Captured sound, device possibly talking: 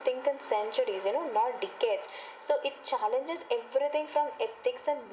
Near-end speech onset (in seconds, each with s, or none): none